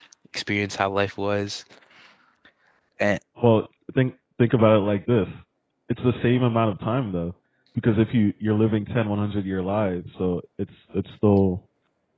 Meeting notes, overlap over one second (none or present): none